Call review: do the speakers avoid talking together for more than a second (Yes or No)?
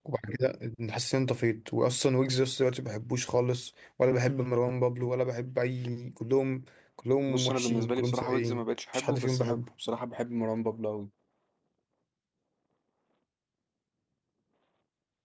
No